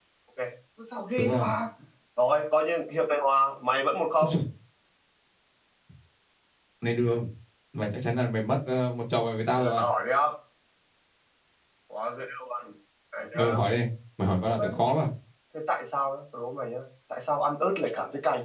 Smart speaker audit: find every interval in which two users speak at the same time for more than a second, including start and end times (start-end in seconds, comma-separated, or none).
none